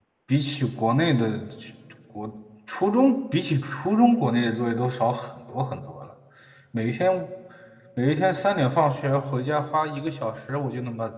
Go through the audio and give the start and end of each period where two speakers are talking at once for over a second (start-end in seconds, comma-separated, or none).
none